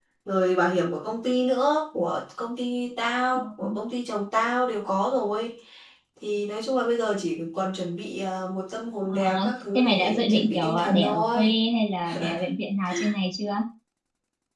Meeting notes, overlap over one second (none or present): present